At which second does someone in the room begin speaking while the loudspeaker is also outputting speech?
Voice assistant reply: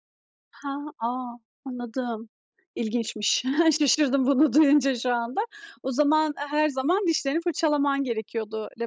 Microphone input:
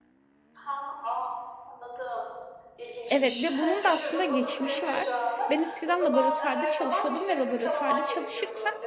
3.1 s

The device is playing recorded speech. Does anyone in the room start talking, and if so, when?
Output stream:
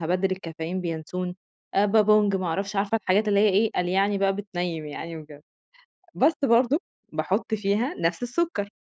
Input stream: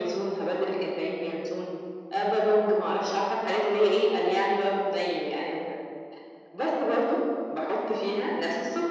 none

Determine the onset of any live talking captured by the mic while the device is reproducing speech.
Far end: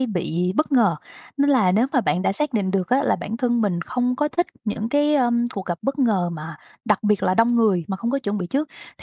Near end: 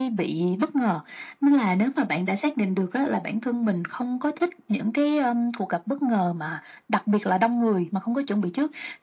none

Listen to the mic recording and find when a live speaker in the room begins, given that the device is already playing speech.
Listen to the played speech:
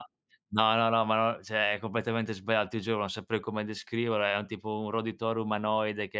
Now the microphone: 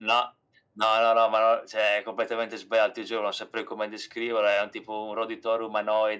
none

